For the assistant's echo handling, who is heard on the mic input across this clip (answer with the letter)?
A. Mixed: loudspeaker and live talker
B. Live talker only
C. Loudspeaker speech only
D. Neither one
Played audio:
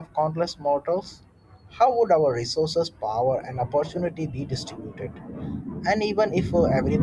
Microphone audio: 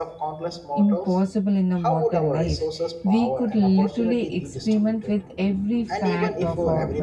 A